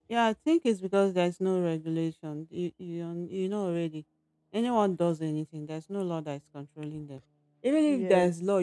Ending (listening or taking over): listening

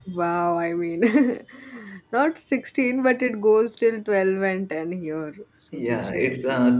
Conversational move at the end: taking over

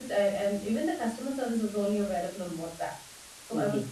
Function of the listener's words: listening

